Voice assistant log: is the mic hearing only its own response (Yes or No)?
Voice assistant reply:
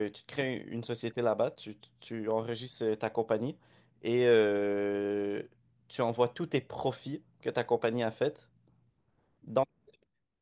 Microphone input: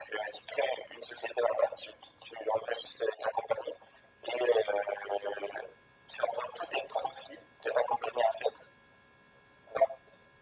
Yes